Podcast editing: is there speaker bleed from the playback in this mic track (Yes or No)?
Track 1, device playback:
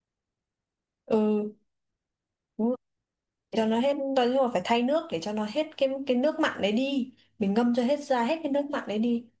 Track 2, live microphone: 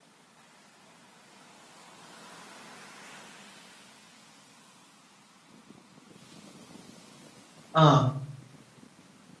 No